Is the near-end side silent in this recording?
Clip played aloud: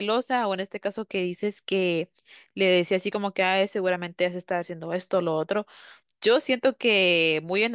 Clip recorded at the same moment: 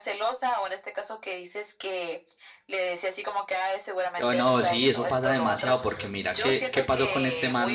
No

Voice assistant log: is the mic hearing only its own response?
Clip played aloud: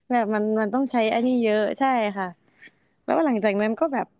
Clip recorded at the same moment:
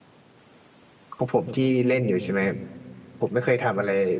No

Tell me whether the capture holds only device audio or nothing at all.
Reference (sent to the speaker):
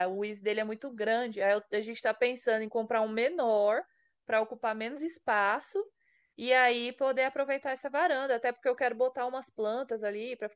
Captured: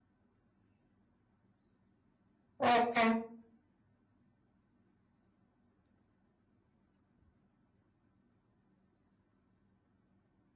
No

